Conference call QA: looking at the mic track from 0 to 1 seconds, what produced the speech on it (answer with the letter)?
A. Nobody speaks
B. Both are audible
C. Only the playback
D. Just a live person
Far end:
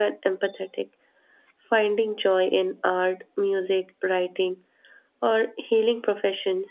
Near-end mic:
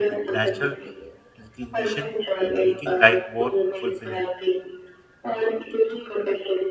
B